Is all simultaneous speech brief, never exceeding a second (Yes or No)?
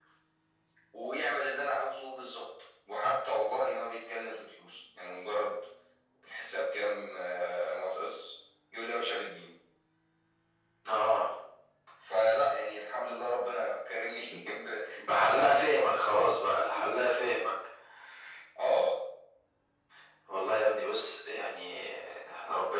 No